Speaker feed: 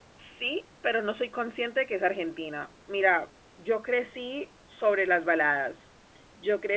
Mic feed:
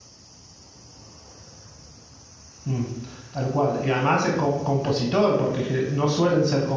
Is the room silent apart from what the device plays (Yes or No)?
No